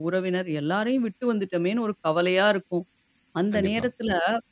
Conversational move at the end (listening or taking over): listening